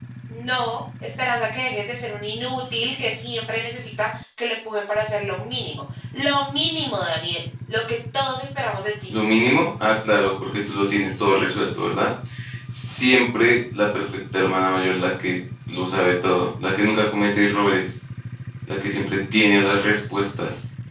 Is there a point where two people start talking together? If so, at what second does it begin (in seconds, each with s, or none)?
none